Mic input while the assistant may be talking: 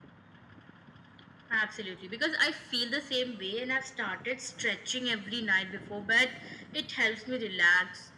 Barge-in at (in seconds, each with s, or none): none